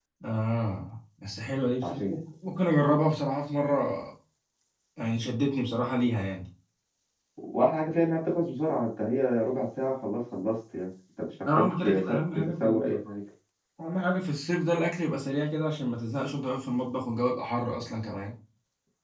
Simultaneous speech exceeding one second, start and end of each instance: 11.5-13.0

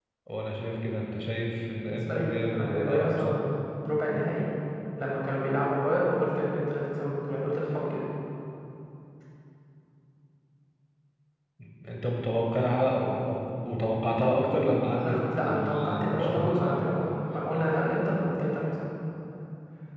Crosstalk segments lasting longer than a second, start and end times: 1.9-3.4, 15.0-16.8

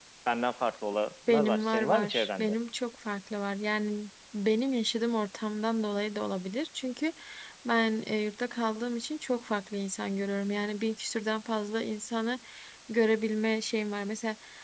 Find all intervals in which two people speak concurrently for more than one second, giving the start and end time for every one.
1.3-2.5

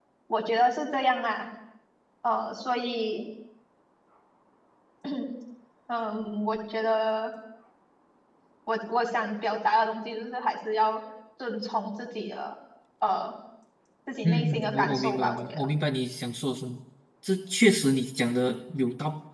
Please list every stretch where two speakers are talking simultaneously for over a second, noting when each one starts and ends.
14.2-15.7

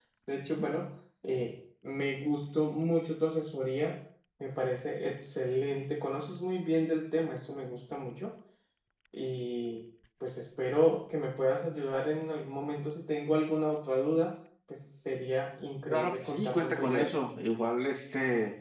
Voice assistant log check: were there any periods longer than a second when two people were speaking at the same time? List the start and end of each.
15.9-17.1

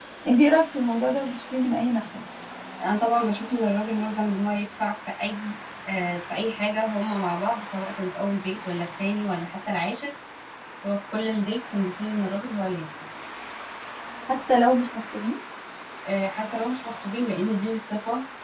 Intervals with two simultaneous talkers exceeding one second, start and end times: none

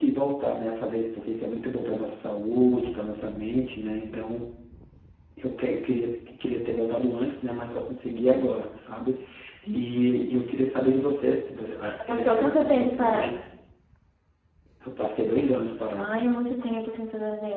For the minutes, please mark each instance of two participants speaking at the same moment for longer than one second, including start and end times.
12.0-13.3

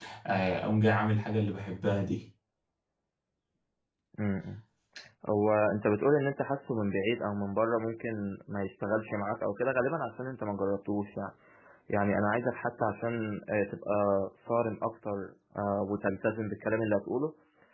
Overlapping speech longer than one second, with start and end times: none

